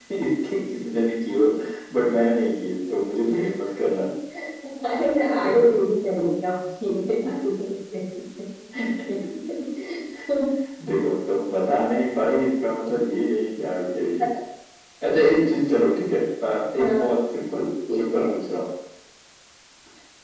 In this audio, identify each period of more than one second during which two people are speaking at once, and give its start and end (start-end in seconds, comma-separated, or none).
none